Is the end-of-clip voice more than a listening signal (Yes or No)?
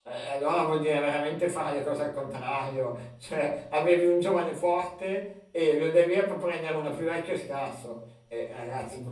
No